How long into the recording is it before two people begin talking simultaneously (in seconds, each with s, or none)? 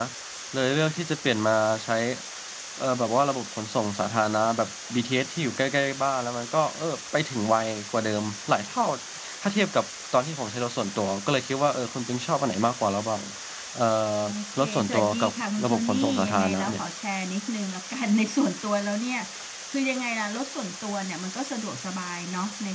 14.6 s